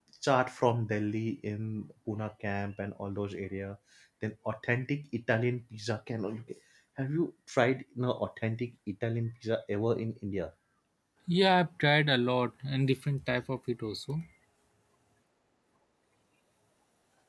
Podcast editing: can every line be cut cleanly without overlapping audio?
Yes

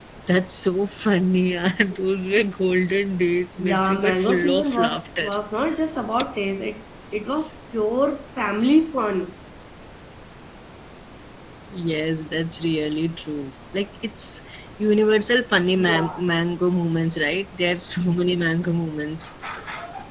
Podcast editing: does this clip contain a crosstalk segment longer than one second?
Yes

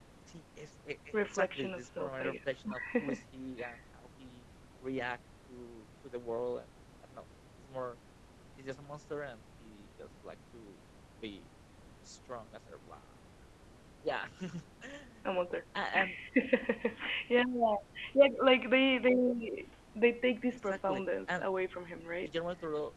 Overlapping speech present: Yes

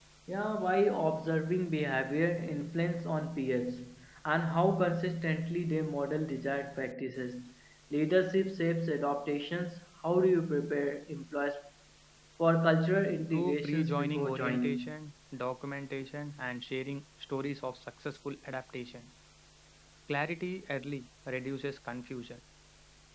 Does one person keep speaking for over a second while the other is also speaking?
Yes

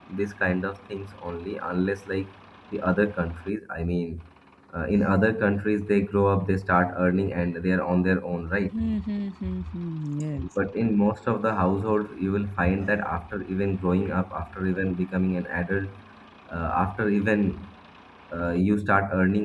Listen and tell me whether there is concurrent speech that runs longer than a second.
No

